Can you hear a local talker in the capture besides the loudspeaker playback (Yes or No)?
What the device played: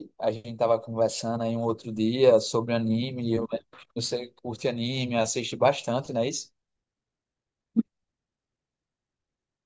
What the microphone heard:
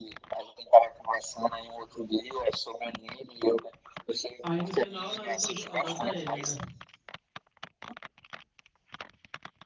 Yes